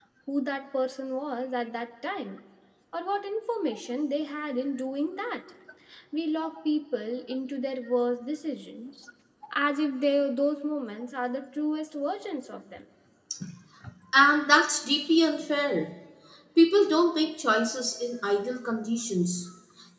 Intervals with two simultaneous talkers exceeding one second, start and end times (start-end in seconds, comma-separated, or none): none